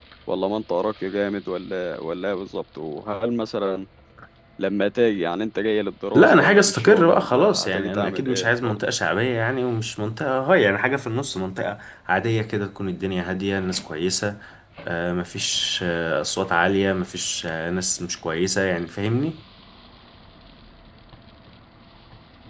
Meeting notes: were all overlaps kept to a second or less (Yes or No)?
No